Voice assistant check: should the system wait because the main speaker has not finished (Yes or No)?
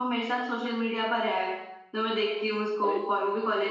Yes